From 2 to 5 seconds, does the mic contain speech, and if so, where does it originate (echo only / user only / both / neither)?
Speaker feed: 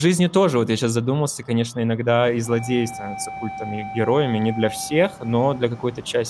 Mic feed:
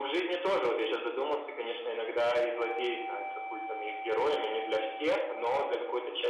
echo only